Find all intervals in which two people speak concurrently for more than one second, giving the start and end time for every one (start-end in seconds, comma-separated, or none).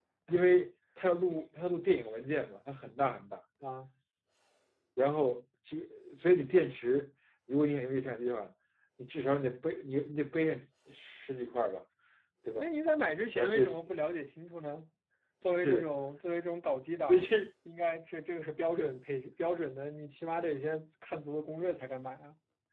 none